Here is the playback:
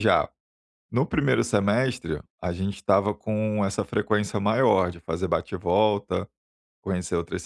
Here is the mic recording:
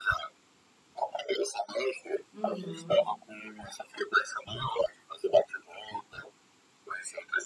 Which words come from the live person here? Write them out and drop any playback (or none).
Uhum.